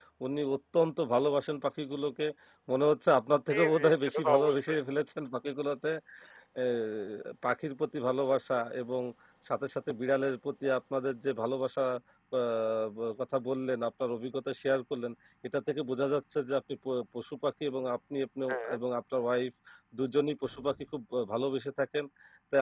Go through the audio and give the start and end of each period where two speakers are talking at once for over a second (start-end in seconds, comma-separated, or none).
3.5-4.8